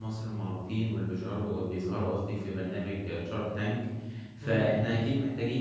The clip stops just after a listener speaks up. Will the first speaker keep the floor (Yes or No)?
Yes